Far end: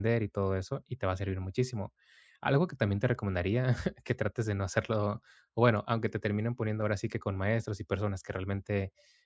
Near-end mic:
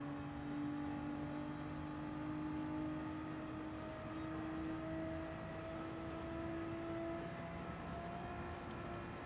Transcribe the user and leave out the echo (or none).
none